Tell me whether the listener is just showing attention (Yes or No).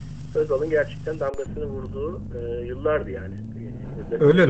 No